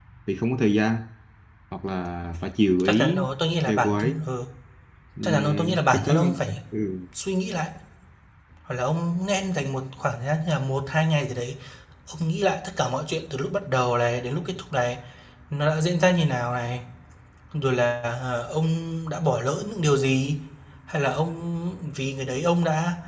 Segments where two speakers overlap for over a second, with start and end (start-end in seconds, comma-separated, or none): 5.2-6.5